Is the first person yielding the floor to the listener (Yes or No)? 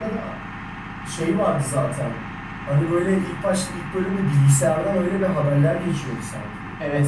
Yes